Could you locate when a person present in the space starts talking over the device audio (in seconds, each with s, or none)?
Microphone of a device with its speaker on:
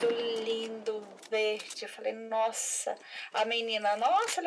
none